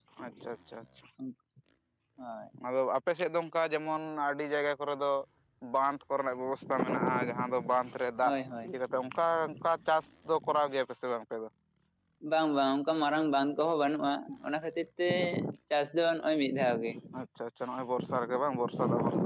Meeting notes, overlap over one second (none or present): none